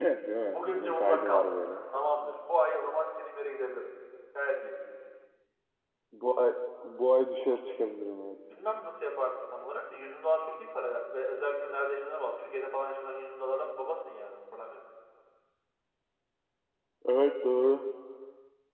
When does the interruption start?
0.5 s

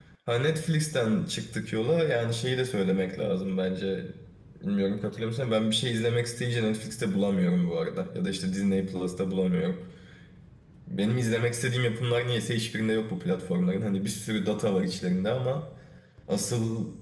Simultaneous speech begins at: none

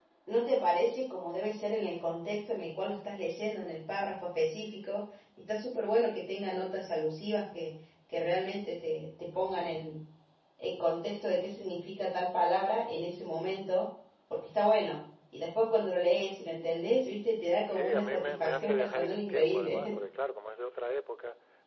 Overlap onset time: 17.7 s

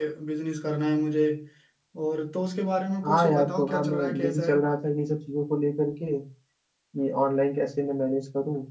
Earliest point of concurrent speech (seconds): 3.0 s

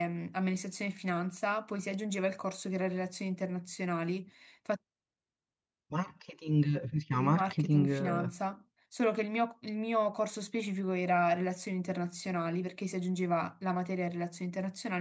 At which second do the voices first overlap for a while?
7.1 s

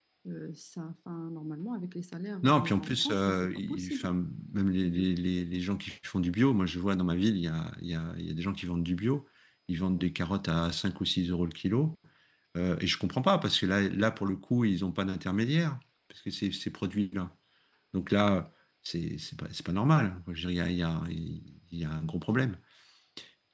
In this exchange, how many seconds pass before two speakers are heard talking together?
2.4 s

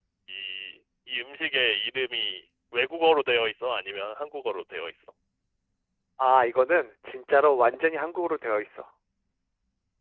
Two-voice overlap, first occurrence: none

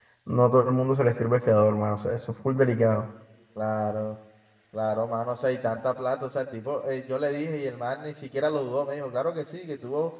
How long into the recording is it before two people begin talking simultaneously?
none

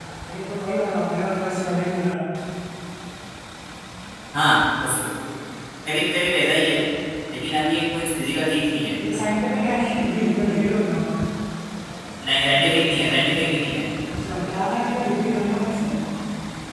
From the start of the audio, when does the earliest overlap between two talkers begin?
none

